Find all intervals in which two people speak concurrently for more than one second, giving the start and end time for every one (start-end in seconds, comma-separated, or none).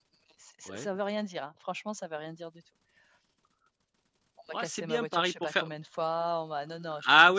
4.5-5.7